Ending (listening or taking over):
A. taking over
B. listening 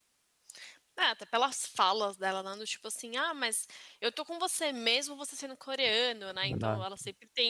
B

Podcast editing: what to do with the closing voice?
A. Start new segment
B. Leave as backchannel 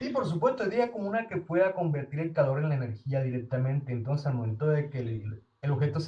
B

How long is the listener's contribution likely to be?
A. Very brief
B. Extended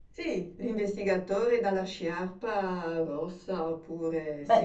B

